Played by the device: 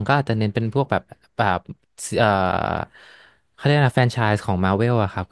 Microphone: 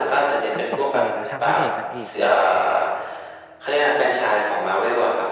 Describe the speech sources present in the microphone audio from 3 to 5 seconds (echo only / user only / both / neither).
echo only